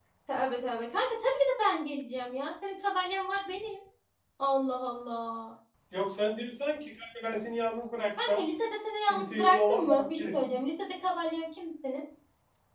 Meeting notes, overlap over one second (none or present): present